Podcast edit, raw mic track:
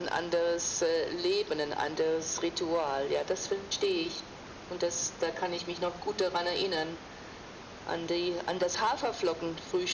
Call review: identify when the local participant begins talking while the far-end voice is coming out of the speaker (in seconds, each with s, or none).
none